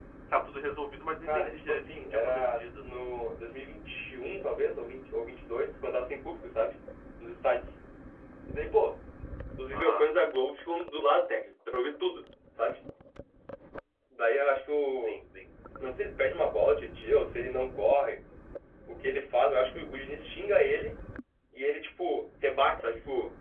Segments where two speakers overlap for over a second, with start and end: 1.3-2.8

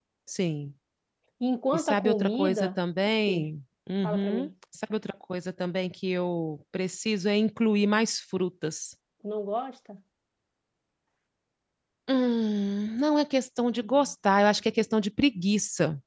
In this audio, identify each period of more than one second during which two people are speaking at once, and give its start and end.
1.7-3.5

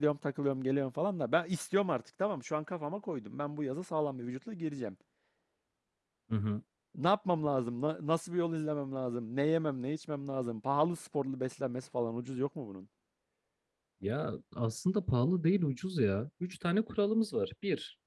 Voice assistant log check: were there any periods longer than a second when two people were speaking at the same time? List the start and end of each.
none

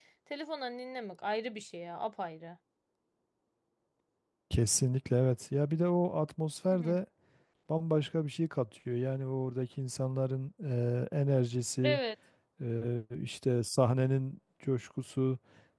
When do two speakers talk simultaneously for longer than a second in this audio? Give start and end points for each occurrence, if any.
none

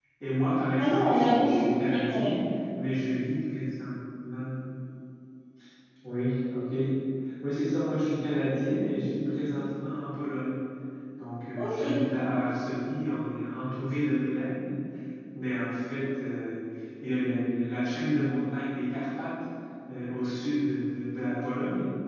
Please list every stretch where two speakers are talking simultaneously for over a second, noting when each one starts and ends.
0.8-2.4

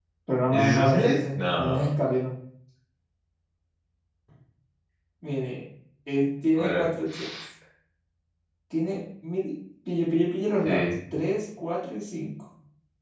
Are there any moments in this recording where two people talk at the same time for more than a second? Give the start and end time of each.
0.5-1.9

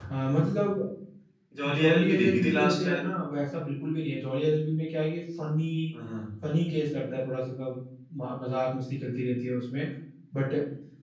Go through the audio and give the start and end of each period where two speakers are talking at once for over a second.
1.7-3.0

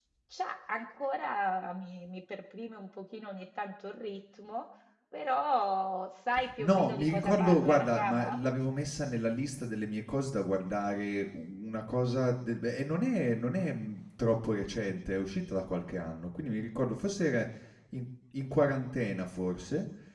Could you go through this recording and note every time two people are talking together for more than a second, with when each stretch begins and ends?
6.6-8.4

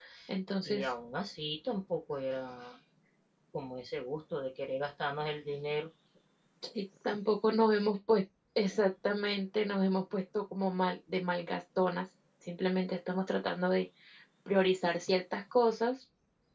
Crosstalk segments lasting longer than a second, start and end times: none

